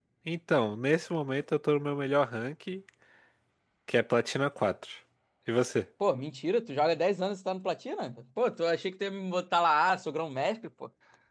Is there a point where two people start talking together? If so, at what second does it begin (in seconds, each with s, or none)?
none